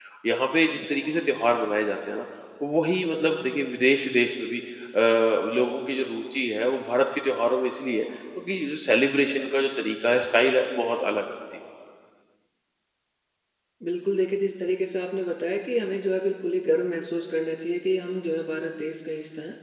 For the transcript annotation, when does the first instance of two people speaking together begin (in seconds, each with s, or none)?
none